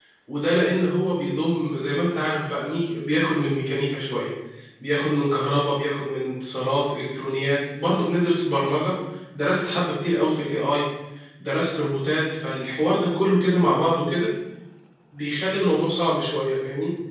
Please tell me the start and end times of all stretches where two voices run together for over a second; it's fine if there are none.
none

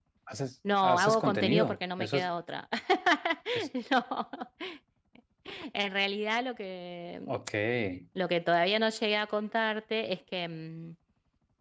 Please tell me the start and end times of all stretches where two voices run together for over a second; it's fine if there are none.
0.8-2.3

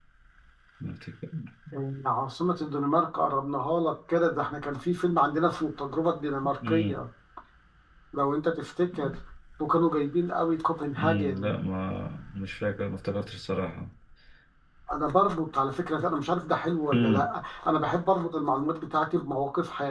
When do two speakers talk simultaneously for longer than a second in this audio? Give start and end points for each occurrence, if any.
none

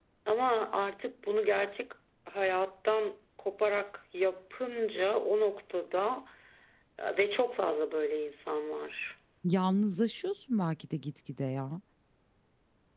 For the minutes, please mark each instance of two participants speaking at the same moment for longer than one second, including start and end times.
none

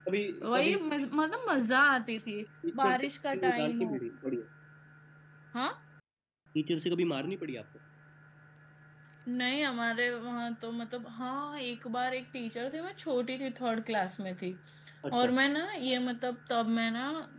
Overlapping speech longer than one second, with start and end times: 2.8-4.0

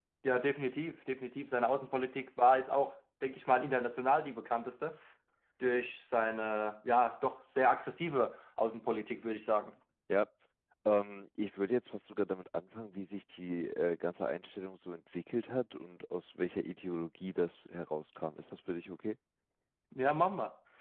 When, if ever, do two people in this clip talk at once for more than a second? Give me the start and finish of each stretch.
none

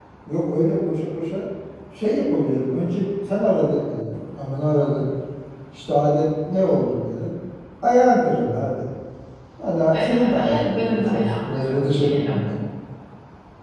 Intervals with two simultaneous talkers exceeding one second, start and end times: 9.9-12.4

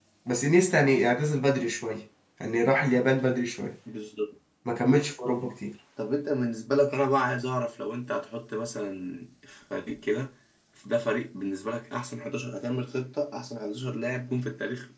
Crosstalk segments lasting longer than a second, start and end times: none

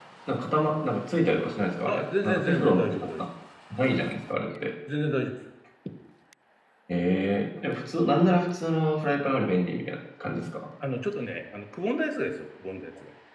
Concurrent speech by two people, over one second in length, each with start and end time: 1.9-3.1

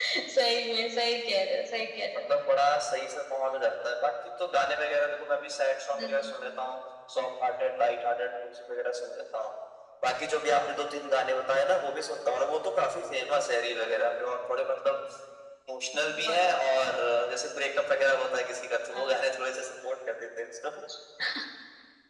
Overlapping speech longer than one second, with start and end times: none

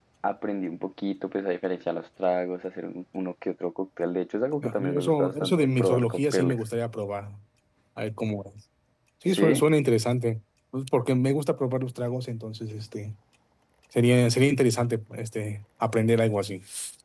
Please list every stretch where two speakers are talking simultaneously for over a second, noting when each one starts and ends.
4.6-6.6

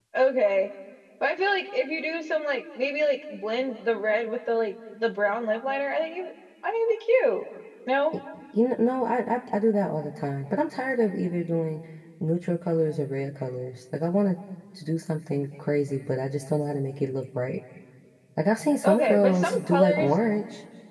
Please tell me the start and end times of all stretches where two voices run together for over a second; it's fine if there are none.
18.8-20.1

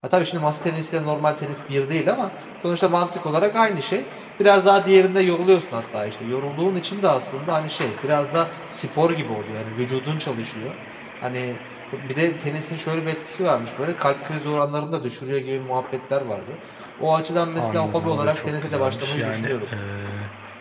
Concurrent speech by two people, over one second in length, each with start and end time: 17.6-19.7

